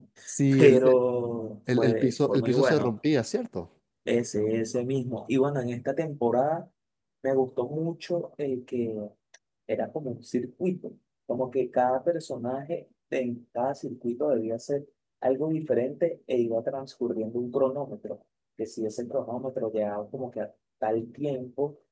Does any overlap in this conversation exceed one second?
Yes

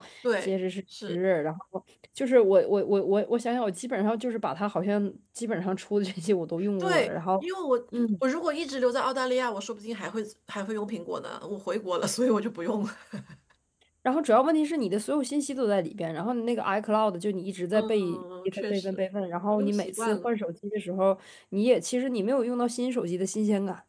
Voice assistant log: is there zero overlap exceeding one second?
No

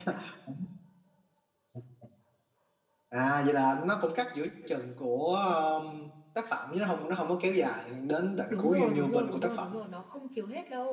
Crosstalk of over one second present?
Yes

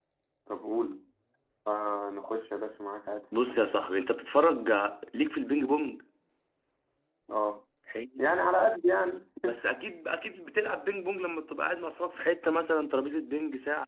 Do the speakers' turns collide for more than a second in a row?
No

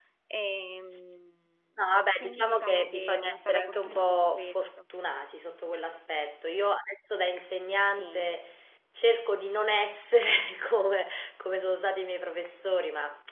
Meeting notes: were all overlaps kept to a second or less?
No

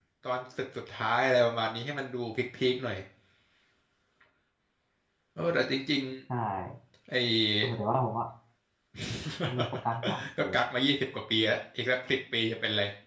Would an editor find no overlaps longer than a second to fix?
Yes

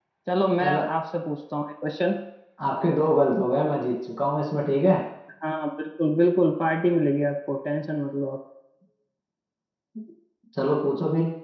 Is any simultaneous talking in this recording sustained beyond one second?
No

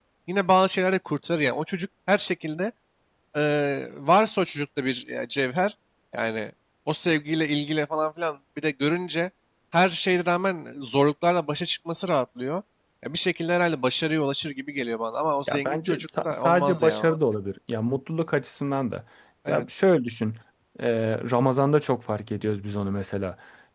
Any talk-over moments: Yes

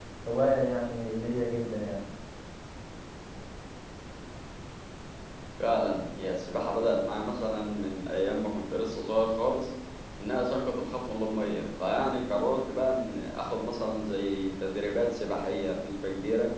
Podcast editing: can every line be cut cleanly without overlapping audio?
Yes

